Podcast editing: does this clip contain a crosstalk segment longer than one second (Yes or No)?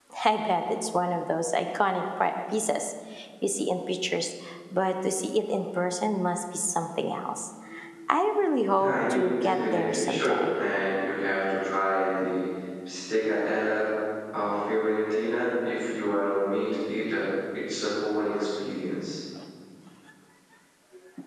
Yes